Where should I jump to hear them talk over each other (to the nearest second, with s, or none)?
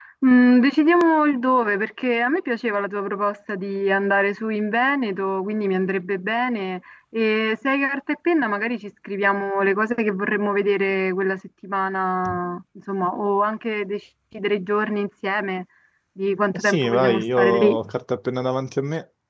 17 s